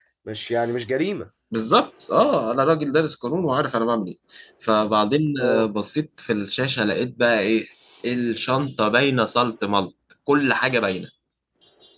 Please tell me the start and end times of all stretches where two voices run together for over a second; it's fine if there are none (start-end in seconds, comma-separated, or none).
none